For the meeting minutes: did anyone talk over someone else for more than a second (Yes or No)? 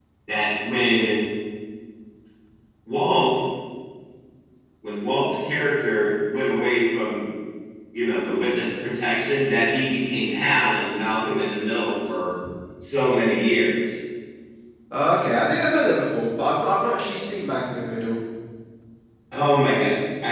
No